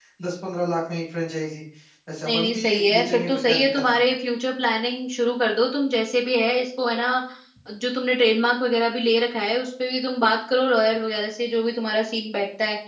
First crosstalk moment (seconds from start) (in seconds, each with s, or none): 2.2 s